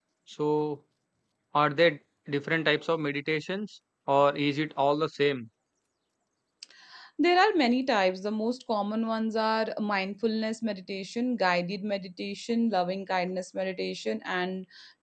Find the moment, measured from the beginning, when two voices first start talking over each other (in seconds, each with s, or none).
none